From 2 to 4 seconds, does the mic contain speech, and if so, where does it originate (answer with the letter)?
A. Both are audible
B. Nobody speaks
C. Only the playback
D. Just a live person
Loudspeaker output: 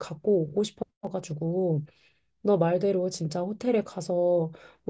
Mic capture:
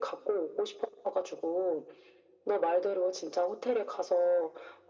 C